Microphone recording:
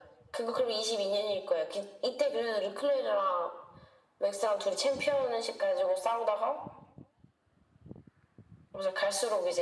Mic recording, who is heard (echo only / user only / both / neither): echo only